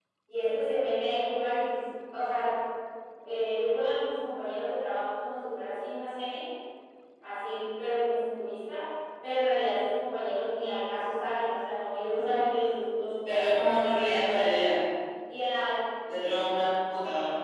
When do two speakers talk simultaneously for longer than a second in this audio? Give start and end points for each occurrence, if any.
13.3-14.7

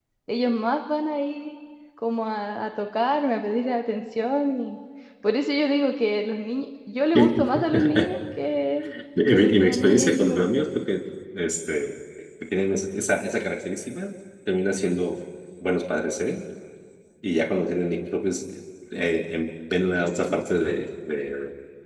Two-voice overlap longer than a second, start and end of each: 9.2-10.7

